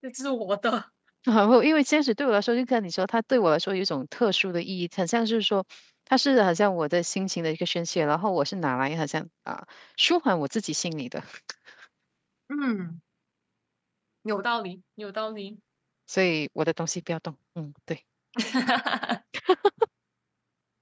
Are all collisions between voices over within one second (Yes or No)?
Yes